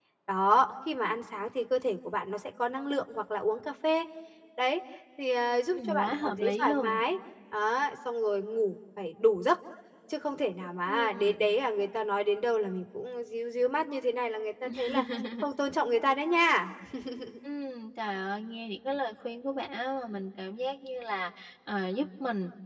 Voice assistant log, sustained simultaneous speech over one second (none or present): present